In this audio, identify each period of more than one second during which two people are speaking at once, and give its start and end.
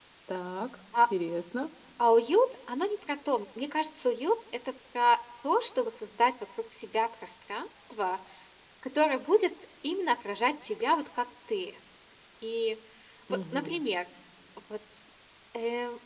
none

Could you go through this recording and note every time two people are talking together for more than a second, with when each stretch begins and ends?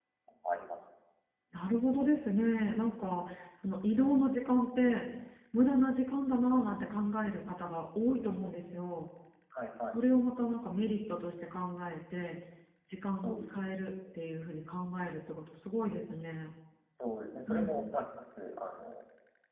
none

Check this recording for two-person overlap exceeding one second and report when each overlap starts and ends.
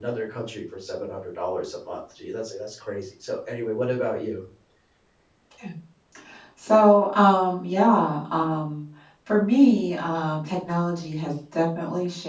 none

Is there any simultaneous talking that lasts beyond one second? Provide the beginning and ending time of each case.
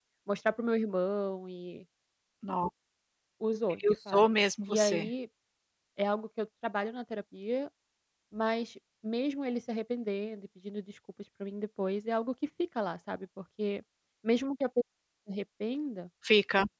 3.9-5.1

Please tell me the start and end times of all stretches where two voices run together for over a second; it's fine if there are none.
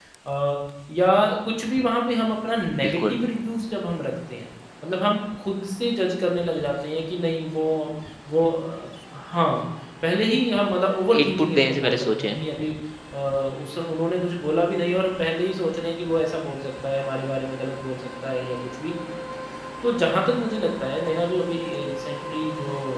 11.2-12.4

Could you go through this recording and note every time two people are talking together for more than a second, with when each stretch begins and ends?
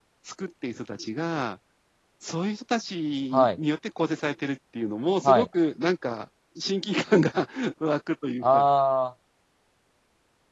none

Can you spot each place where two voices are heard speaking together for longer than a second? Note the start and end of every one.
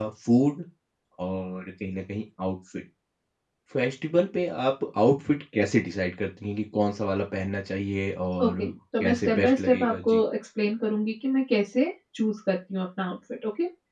9.0-10.2

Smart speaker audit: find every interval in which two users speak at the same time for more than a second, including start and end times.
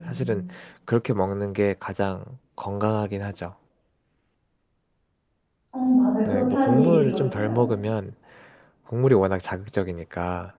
6.2-7.7

